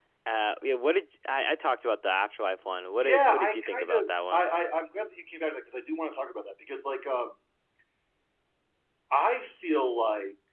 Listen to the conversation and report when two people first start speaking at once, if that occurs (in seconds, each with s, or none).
3.0 s